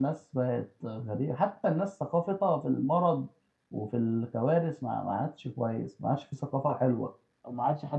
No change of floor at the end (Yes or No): No